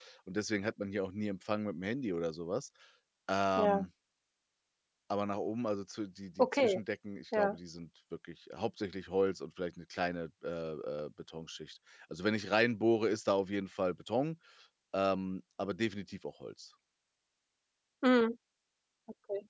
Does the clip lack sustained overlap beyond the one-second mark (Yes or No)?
Yes